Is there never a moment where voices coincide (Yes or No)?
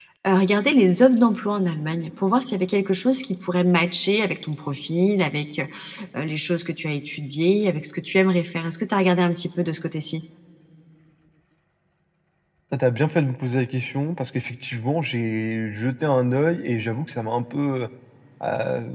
Yes